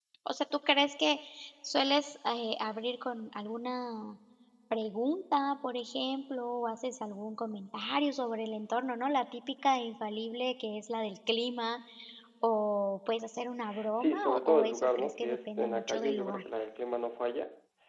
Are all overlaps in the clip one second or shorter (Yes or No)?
No